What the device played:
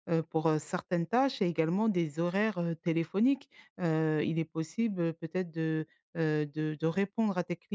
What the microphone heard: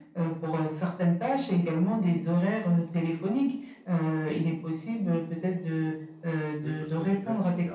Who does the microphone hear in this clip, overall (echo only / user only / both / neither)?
both